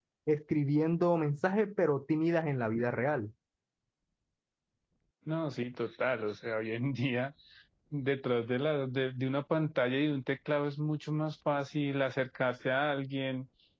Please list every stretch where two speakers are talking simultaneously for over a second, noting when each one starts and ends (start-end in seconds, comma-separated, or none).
none